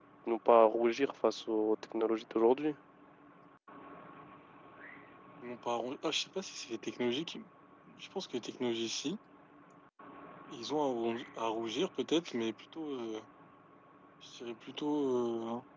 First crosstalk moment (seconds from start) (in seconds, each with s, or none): none